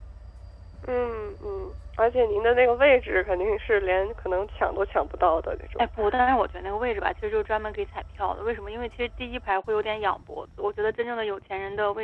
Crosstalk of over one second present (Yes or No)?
No